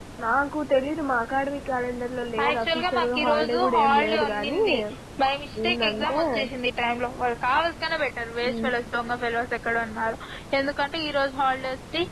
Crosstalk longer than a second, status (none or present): present